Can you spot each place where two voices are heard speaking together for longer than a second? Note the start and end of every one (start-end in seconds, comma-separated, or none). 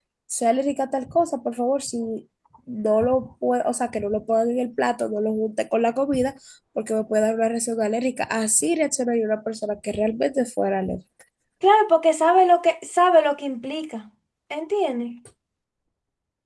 none